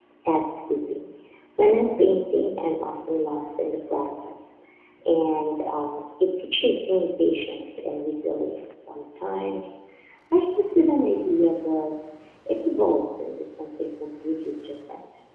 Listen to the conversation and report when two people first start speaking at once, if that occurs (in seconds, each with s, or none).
none